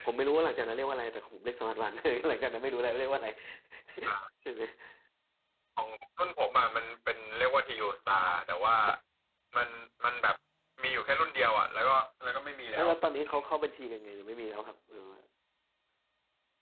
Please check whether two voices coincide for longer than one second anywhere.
No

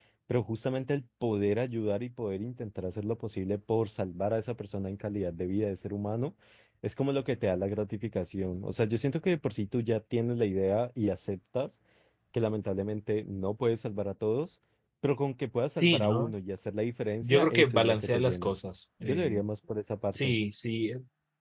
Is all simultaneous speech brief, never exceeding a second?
No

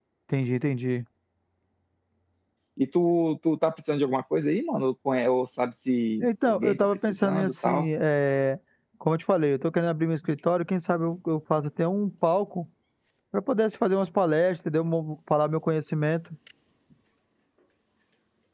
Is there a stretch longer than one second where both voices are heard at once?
Yes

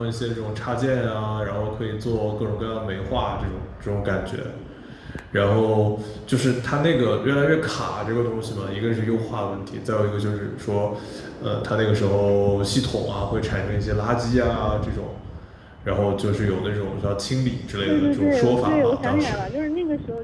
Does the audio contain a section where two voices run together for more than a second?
Yes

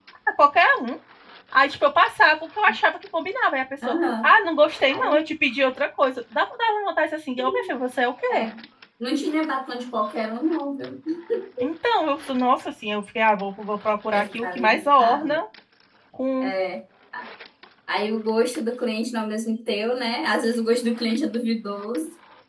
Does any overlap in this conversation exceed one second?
Yes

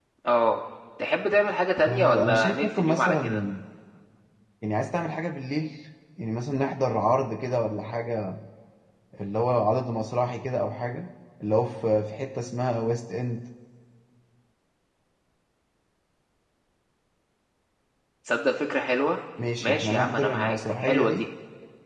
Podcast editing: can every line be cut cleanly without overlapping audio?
No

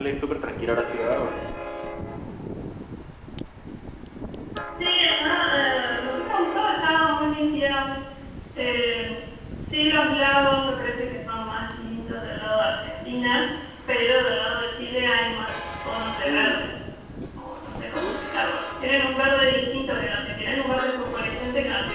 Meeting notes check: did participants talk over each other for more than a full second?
No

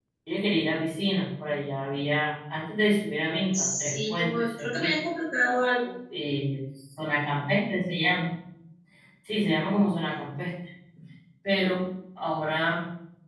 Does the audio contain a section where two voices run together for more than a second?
Yes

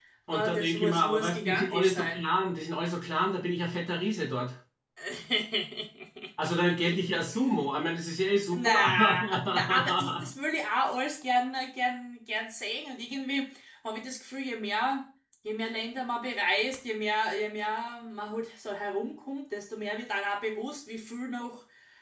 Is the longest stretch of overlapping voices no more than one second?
No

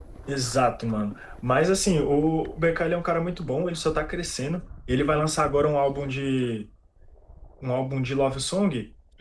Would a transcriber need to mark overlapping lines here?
No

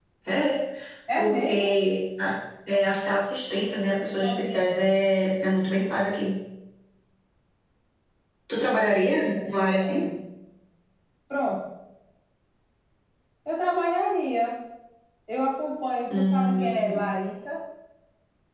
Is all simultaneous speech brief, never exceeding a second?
No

